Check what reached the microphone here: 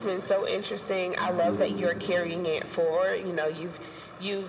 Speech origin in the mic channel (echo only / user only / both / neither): both